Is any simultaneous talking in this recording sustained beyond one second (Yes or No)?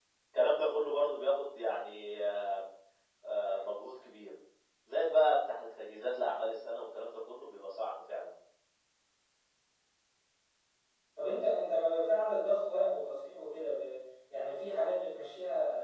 No